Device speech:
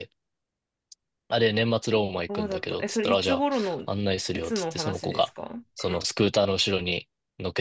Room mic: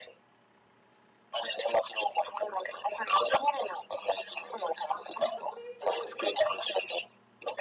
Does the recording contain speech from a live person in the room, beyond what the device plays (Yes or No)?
Yes